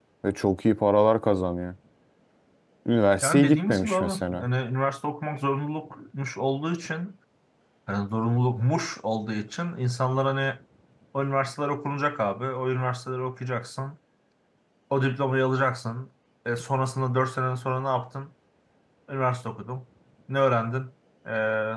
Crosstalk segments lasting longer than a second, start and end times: 3.2-4.5

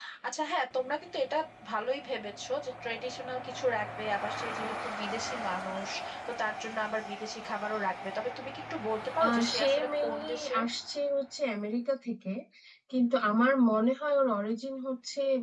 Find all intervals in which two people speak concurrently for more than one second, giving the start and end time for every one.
9.3-10.7

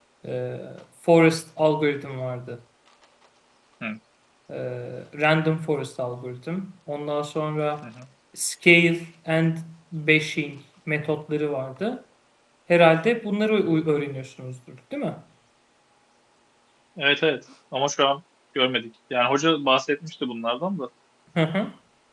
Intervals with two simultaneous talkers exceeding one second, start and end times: none

